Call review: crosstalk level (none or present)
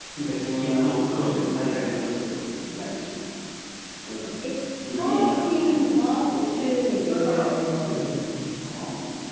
present